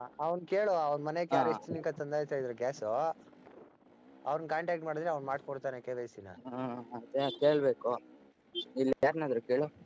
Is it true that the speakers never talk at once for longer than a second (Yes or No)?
Yes